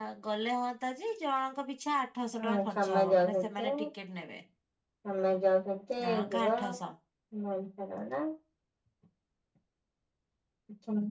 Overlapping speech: Yes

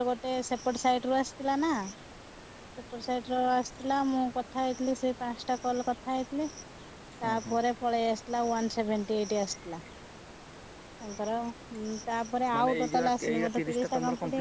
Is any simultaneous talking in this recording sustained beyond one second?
Yes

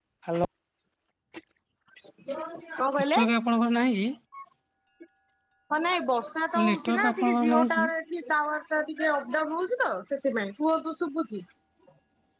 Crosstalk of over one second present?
Yes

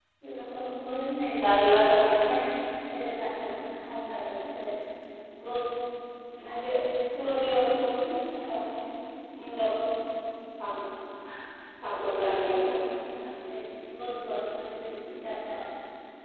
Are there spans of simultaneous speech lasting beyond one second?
No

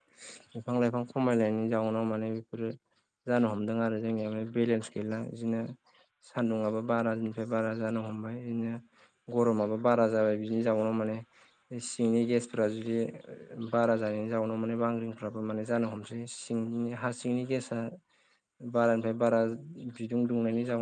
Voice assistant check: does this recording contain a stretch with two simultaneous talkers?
No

